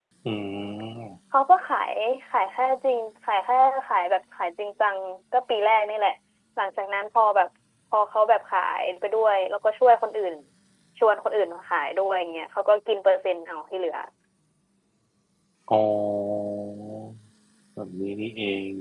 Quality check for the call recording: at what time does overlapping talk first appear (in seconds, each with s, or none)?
none